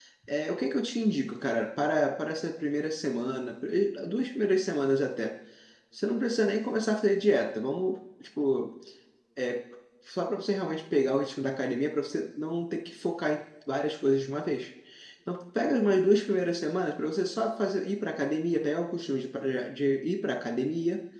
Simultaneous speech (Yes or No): No